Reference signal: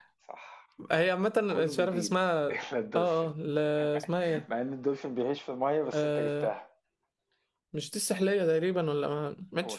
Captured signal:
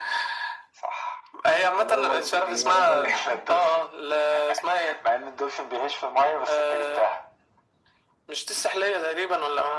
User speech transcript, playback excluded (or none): خلاص الإجابة طلعت